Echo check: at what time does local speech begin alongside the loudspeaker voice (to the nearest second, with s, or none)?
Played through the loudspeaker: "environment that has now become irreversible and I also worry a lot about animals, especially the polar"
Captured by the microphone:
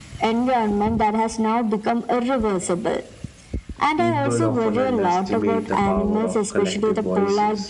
4 s